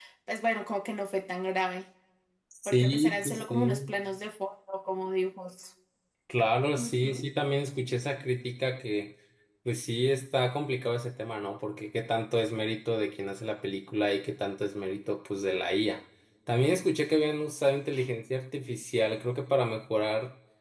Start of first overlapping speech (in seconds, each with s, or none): 2.6 s